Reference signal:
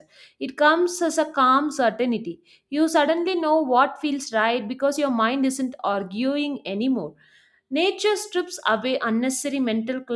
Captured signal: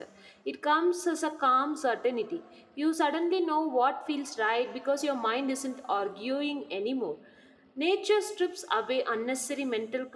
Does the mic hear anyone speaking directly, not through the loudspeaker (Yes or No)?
No